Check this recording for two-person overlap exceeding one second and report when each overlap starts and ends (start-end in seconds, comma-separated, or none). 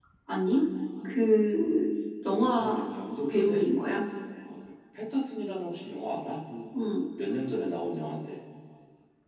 none